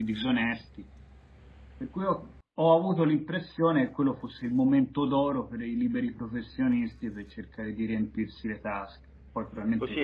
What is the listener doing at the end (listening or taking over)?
taking over